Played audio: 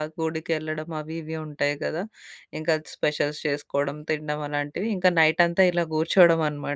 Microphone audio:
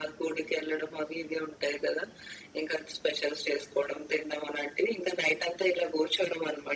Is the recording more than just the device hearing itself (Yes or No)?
No